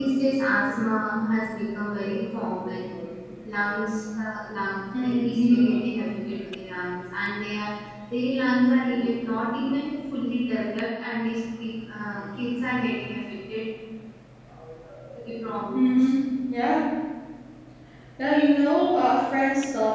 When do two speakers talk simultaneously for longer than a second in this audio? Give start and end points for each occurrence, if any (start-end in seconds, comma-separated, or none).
none